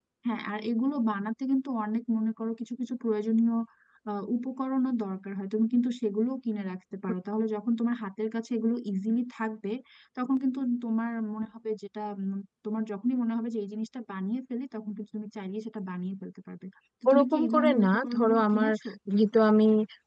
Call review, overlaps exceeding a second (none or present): present